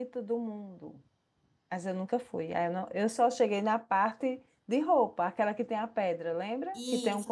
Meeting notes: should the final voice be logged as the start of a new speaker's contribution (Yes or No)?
Yes